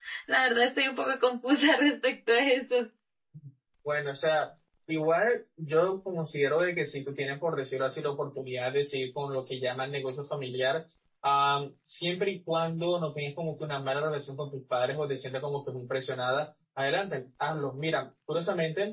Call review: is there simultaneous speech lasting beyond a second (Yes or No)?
No